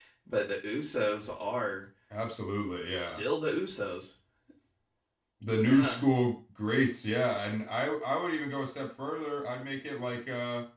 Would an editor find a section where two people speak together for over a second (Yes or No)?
No